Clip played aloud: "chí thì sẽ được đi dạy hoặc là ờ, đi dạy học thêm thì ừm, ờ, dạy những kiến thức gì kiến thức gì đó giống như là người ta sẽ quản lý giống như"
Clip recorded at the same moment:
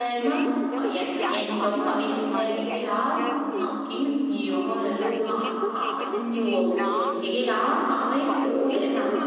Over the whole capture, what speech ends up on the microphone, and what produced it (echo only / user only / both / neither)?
both